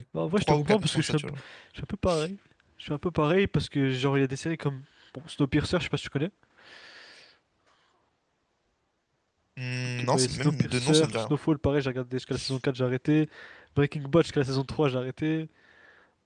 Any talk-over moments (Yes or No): Yes